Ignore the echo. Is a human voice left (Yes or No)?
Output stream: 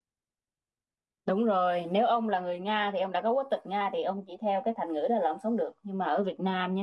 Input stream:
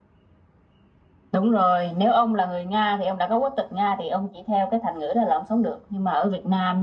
No